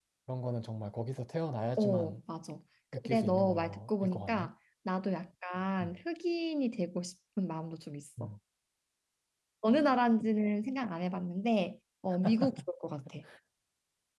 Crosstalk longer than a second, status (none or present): present